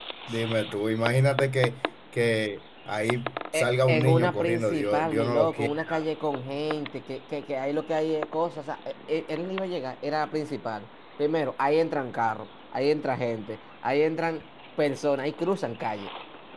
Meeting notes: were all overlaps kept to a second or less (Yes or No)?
No